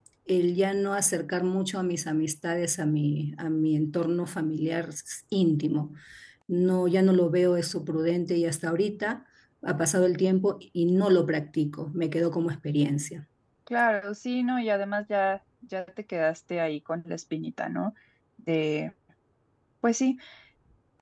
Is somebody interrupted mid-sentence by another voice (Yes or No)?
No